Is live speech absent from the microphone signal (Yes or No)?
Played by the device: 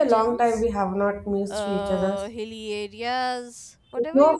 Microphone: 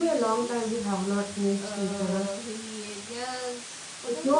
Yes